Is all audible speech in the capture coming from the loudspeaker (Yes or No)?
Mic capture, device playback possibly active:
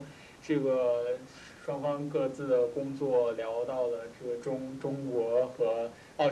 Yes